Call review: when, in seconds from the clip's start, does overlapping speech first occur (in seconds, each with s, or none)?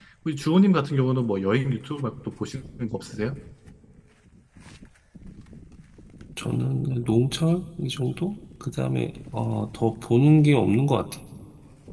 none